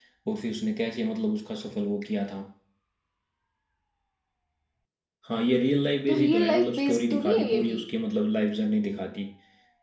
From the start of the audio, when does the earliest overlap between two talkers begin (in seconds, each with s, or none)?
6.1 s